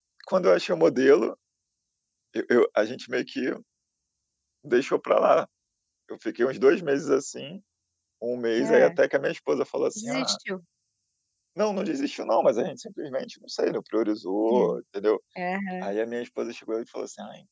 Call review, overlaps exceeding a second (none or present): none